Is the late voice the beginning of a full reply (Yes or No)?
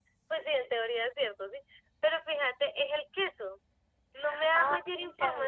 No